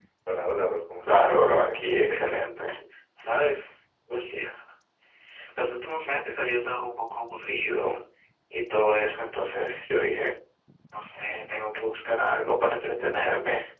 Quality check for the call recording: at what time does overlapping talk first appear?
1.0 s

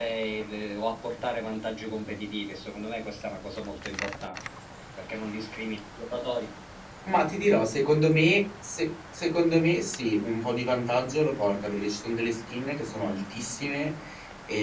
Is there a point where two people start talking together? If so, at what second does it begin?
none

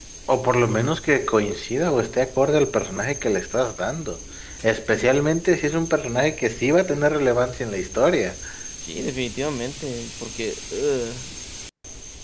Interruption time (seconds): none

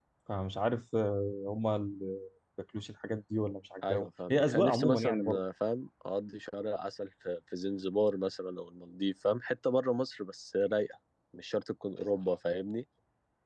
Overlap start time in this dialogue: 3.8 s

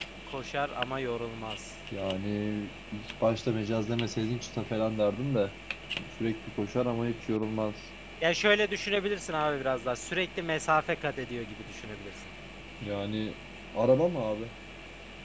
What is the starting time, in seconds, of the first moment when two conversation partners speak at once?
none

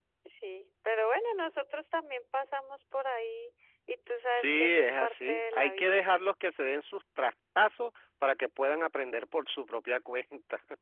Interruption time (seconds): 4.3 s

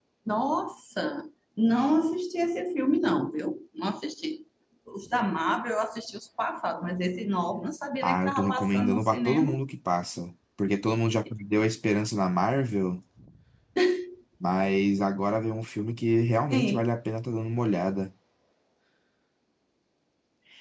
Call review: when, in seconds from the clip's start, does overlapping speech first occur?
8.0 s

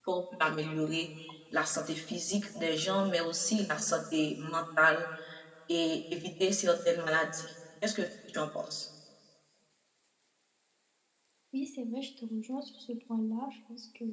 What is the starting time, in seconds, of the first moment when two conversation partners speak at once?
none

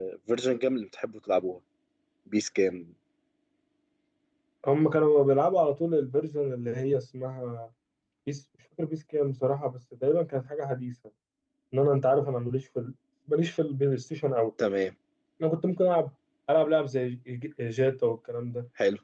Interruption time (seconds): none

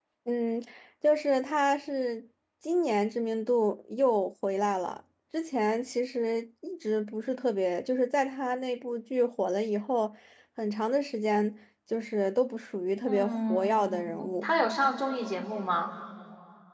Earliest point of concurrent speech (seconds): 13.1 s

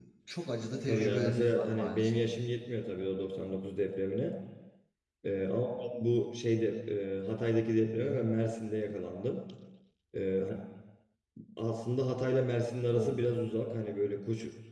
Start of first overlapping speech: 0.9 s

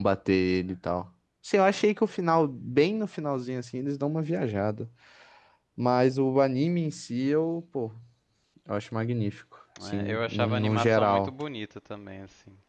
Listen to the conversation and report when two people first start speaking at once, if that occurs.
10.0 s

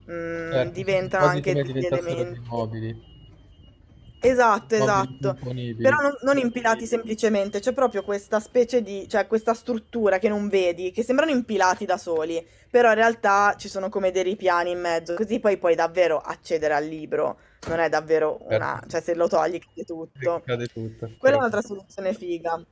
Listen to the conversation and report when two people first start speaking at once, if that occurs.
0.5 s

